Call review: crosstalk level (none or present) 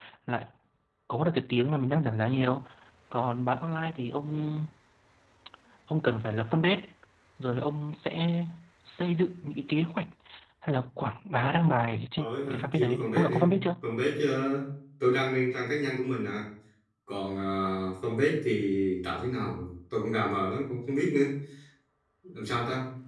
present